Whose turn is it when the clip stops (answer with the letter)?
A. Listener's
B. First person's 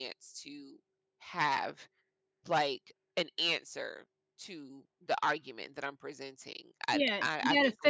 A